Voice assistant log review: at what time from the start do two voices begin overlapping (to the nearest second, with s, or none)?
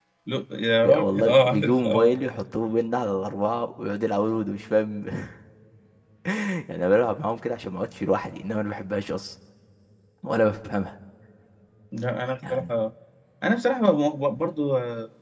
1 s